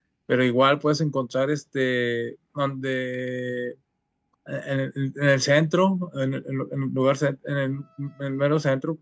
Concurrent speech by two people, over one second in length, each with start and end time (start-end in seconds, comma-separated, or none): none